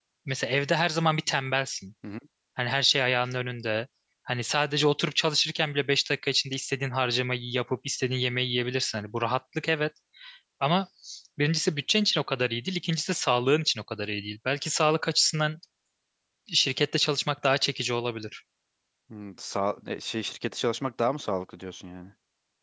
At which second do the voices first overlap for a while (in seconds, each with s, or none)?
none